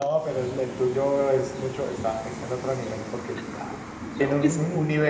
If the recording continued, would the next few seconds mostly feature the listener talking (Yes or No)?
No